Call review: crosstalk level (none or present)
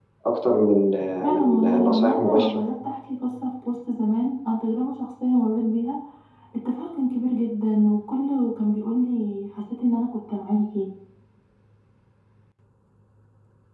present